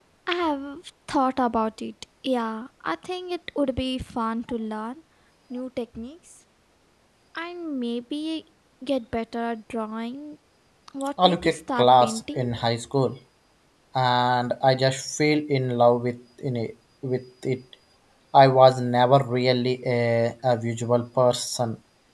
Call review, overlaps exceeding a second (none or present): present